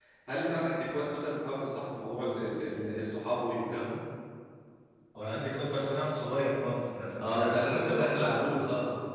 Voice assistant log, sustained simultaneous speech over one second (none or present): present